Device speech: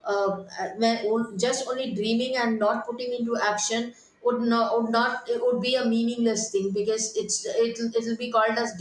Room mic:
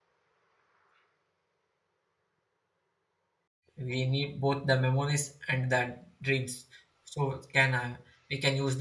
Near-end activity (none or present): present